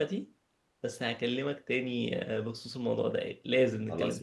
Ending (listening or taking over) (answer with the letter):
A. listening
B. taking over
B